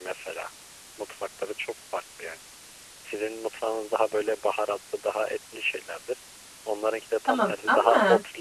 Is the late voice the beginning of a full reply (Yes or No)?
No